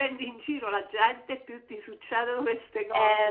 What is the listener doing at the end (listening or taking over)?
taking over